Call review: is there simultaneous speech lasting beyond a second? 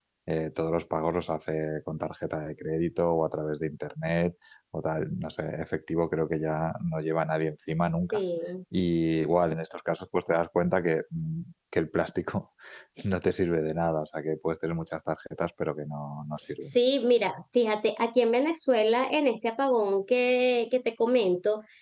No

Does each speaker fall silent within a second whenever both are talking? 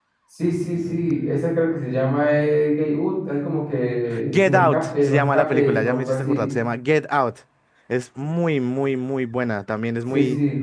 No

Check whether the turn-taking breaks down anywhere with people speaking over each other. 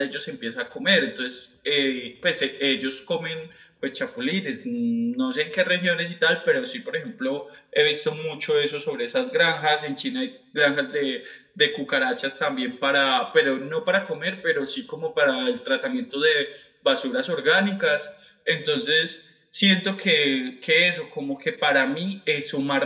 No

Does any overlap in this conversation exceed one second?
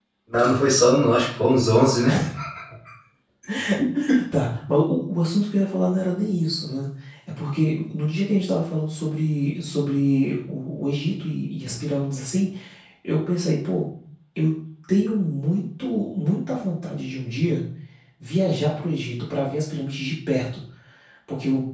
No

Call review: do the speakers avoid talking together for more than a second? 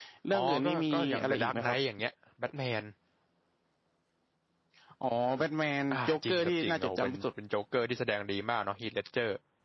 No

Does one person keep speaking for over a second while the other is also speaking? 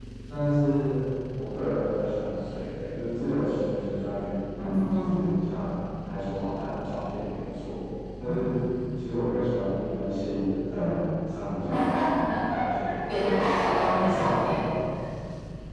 Yes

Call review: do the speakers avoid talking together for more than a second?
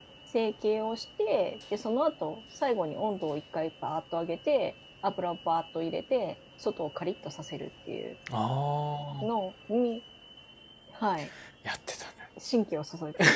Yes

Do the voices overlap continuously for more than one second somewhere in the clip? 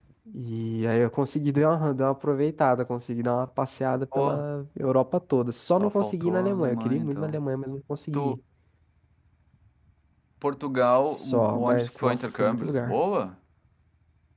Yes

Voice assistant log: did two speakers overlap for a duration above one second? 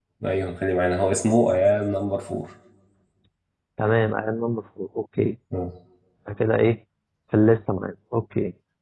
No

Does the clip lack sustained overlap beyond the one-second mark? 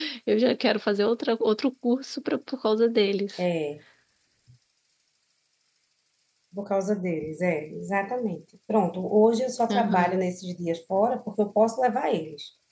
Yes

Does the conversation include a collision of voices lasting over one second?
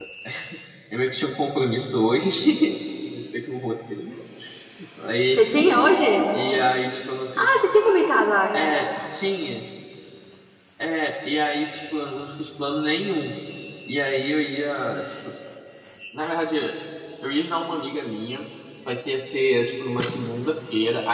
No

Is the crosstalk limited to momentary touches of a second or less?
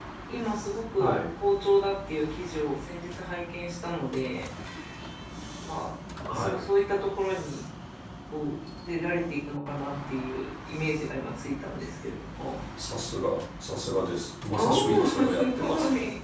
No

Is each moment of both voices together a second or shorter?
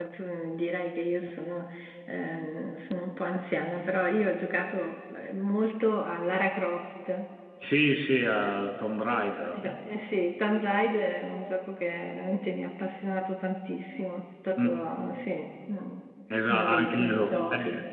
No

